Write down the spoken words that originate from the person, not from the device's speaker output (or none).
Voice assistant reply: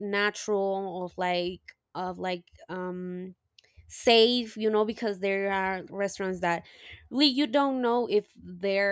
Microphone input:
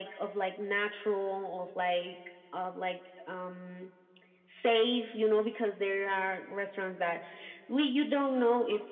none